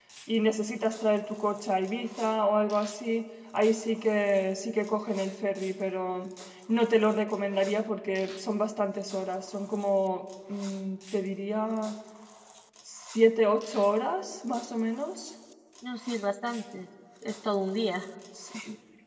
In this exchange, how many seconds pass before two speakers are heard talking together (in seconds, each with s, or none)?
none